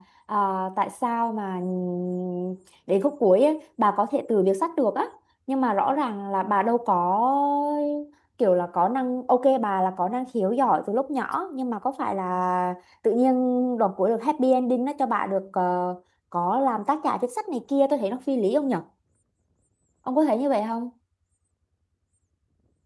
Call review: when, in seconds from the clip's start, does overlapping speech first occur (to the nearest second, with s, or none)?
none